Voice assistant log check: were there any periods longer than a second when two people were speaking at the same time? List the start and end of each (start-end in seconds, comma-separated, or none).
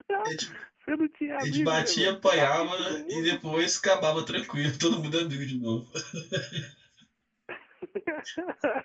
1.4-3.4